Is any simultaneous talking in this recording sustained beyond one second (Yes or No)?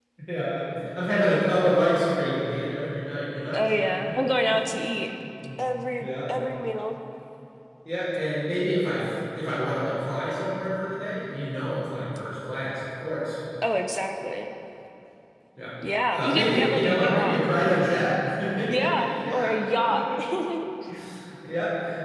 Yes